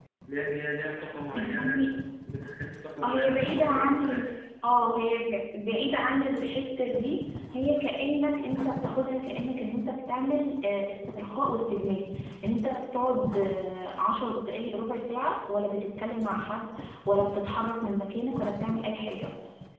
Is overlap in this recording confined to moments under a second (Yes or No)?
No